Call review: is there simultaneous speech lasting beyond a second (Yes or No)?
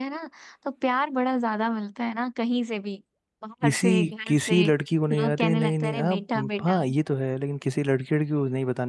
Yes